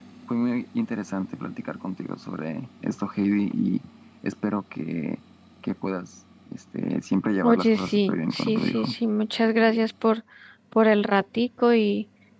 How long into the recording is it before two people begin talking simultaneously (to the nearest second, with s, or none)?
7 s